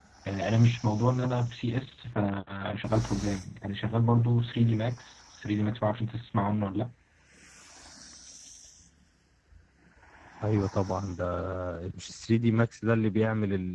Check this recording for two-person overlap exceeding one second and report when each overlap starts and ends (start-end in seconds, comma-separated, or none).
none